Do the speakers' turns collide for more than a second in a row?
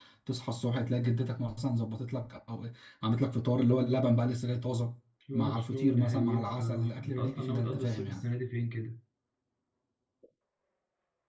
Yes, from 5.3 s

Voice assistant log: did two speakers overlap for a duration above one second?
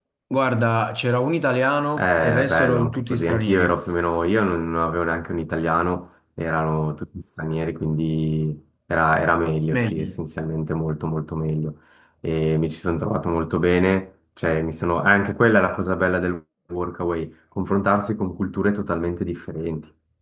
Yes, from 2.0 s

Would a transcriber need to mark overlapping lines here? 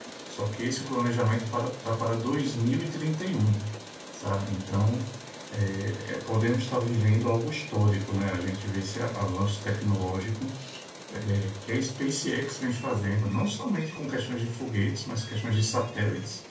No

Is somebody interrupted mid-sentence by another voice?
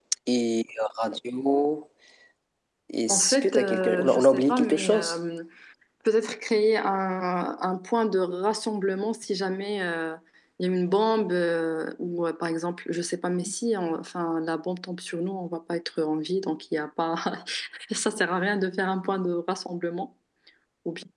Yes, from 3.1 s

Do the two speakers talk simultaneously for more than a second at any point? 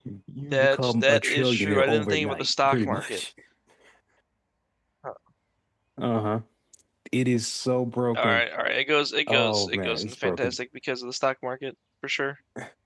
Yes, from 0.5 s

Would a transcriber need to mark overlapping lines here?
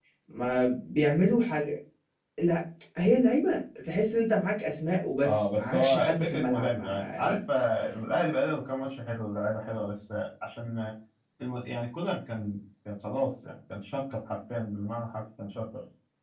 Yes, from 5.2 s

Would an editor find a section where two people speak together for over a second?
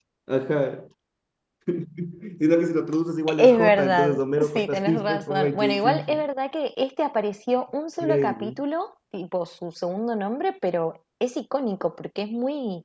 Yes, from 3.4 s

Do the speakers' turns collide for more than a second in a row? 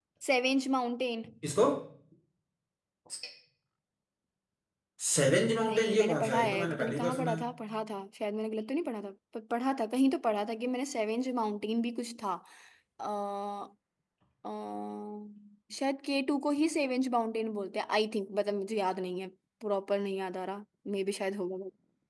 Yes, from 5.6 s

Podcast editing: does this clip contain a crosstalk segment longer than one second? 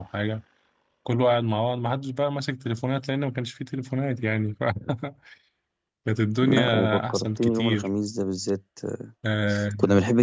Yes, from 6.5 s

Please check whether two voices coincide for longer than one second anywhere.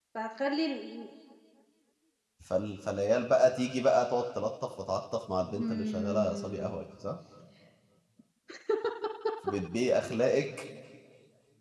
Yes, from 5.4 s

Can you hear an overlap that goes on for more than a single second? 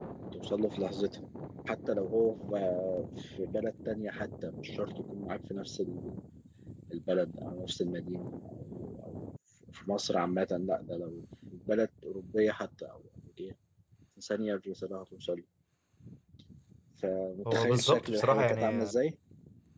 Yes, from 17.5 s

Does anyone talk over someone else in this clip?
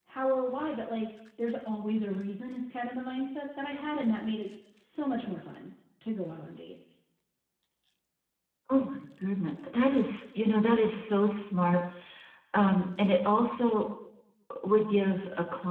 No

